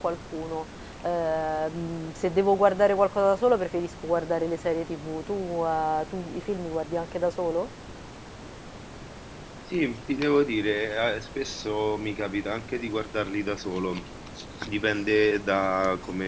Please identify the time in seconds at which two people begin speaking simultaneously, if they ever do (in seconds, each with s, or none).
none